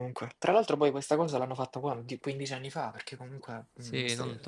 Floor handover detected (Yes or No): Yes